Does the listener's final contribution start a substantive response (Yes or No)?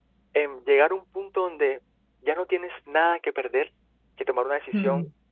No